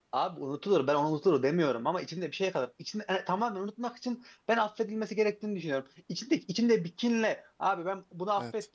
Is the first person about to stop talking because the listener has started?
No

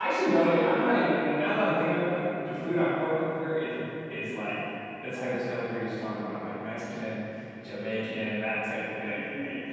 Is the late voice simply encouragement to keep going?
No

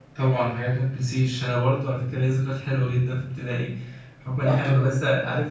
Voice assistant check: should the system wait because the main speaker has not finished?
Yes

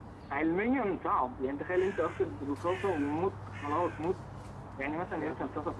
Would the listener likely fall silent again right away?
Yes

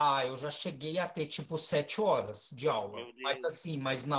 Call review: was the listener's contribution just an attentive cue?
Yes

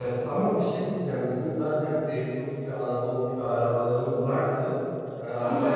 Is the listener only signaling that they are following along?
Yes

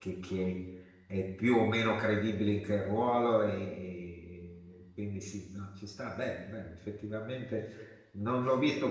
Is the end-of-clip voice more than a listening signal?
No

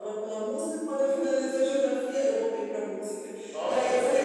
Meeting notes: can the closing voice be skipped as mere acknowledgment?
Yes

